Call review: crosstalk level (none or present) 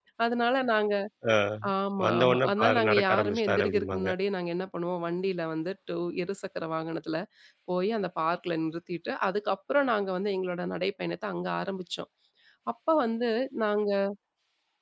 present